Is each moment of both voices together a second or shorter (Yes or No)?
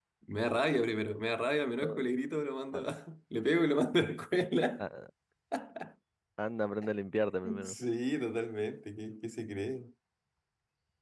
Yes